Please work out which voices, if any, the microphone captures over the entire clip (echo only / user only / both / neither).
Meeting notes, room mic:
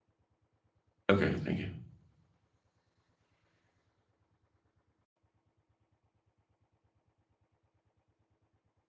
user only